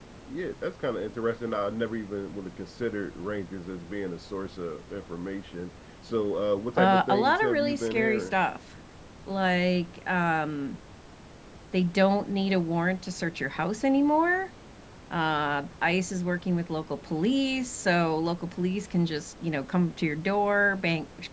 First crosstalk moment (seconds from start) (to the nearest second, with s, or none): 7 s